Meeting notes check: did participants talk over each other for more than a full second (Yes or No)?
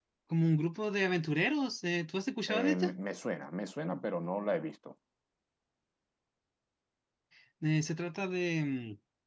No